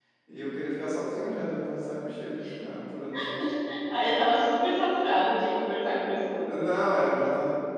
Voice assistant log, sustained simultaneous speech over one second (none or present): none